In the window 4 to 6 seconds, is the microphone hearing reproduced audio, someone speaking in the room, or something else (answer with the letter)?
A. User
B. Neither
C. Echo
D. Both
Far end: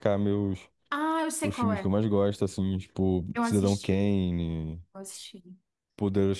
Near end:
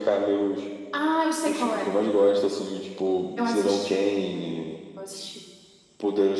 C